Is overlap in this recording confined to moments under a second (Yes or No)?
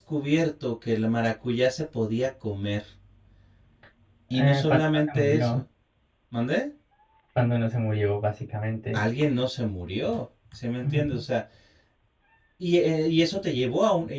No